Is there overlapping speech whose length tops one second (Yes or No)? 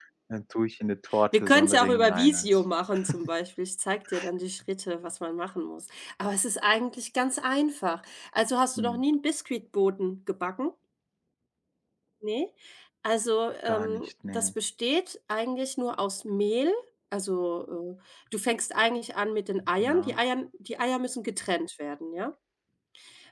Yes